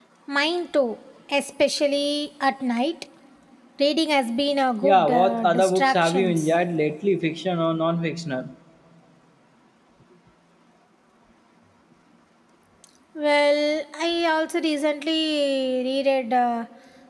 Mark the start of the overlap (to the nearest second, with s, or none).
5 s